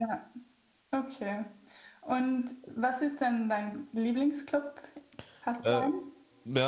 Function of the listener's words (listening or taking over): taking over